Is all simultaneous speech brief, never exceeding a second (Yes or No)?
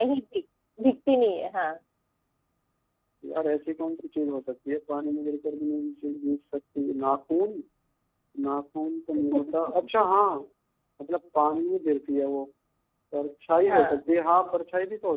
Yes